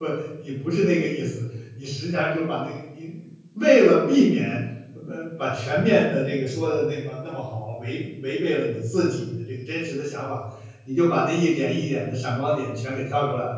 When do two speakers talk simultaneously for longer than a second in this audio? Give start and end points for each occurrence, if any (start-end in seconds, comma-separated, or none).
none